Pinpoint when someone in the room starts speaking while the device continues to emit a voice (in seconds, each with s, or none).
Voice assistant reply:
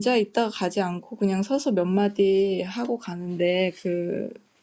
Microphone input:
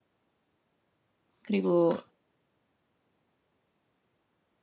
1.4 s